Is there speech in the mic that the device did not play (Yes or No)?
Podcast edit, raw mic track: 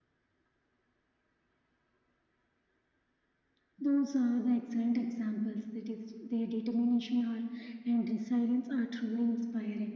No